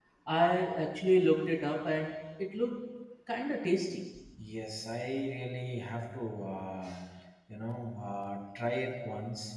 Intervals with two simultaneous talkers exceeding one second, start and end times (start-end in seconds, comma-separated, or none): none